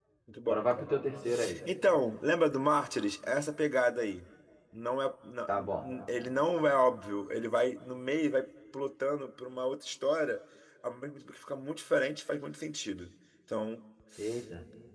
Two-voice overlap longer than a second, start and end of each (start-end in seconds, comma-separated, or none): none